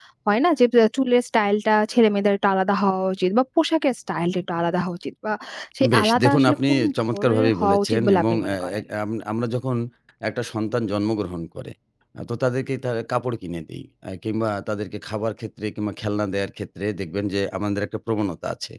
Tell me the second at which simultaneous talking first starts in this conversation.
5.9 s

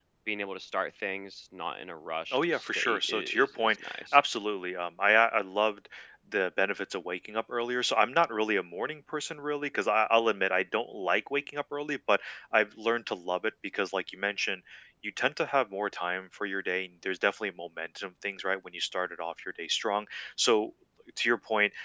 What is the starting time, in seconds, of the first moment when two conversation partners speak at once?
2.3 s

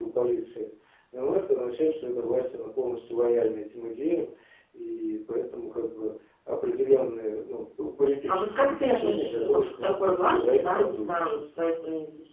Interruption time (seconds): 8.3 s

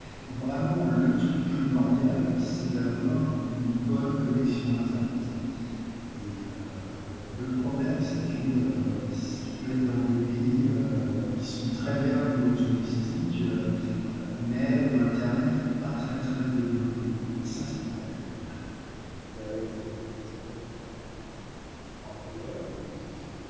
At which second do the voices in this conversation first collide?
none

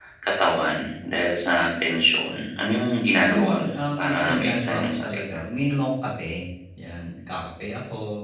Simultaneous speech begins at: 3.2 s

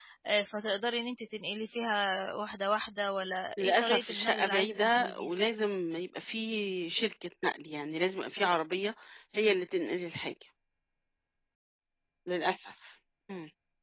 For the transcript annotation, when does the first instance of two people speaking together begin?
3.6 s

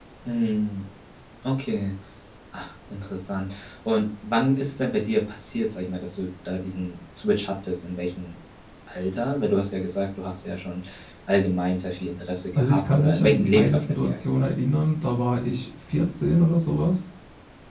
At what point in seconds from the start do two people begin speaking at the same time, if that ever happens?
12.6 s

